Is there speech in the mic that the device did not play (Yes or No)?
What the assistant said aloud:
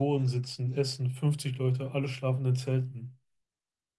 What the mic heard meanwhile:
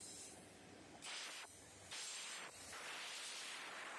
No